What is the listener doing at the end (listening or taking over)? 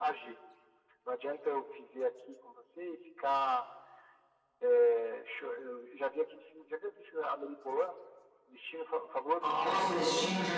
taking over